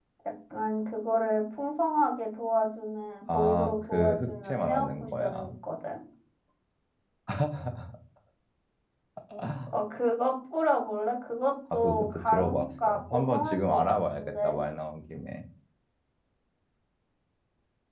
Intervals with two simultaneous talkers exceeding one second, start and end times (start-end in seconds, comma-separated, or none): 3.3-5.5, 11.8-14.6